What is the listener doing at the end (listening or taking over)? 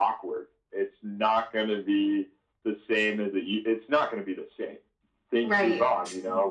taking over